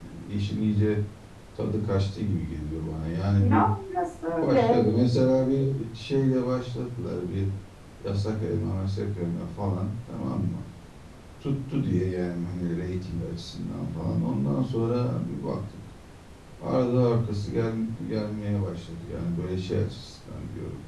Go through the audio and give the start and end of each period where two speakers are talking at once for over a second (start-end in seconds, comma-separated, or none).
none